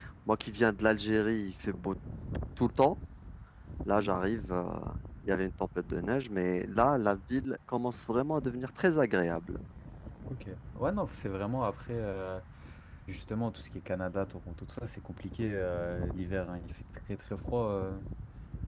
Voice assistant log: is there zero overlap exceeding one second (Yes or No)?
Yes